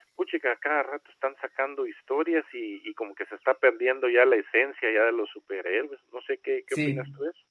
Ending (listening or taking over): taking over